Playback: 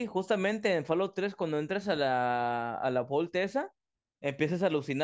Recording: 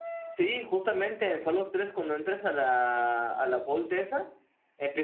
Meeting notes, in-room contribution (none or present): none